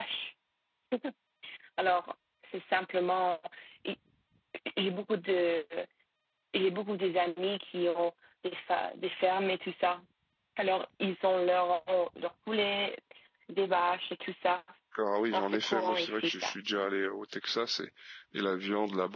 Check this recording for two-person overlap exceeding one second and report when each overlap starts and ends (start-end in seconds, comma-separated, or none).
15.3-16.5